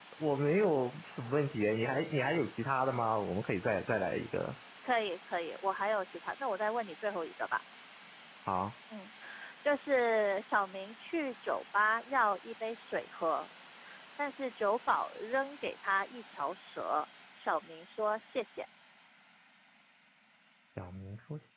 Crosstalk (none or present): none